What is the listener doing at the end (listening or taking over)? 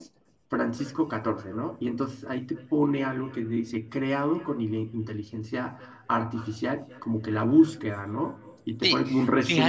taking over